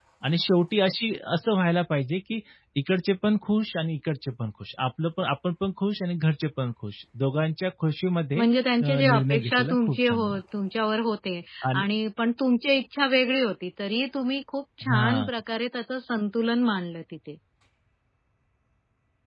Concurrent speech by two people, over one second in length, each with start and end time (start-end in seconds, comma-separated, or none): 8.8-10.4